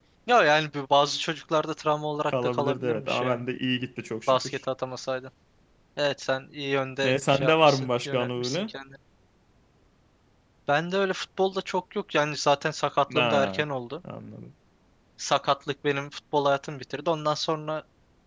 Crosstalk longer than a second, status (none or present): present